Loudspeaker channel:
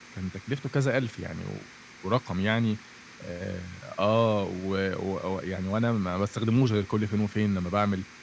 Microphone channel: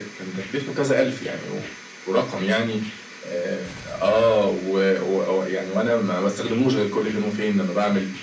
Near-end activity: none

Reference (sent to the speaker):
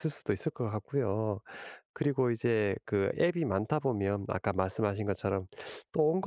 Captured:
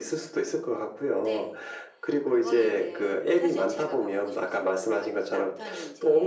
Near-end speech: present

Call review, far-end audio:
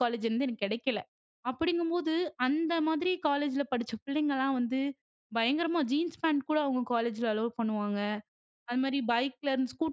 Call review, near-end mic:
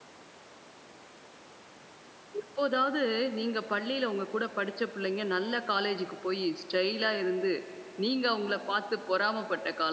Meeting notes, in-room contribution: present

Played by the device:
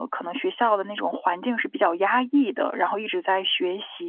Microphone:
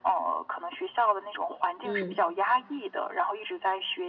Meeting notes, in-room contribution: present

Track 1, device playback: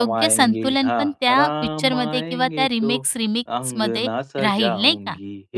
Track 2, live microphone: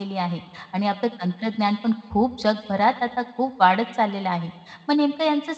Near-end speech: present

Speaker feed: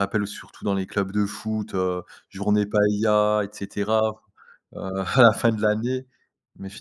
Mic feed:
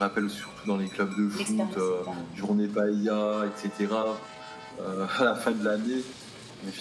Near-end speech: present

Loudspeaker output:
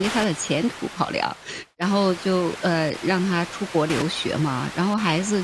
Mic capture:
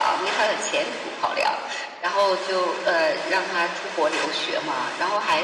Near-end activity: none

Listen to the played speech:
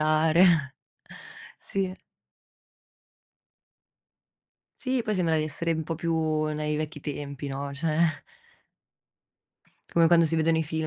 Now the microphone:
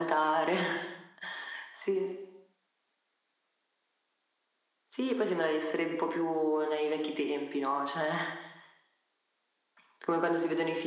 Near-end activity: none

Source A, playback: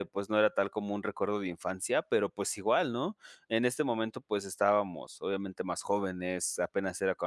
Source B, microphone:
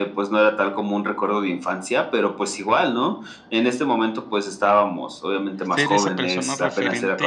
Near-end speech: present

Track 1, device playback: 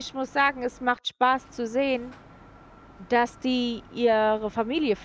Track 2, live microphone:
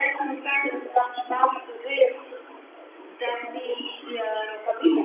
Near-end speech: none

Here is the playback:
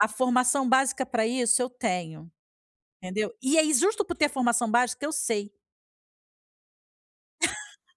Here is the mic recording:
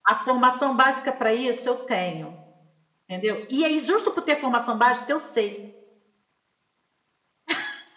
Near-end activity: none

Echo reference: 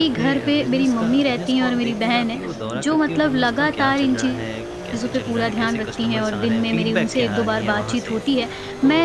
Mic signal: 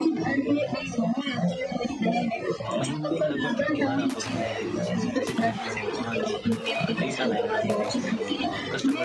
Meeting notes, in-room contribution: present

